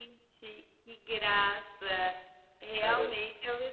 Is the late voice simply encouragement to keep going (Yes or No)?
Yes